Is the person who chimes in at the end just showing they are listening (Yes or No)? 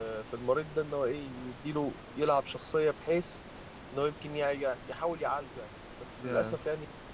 Yes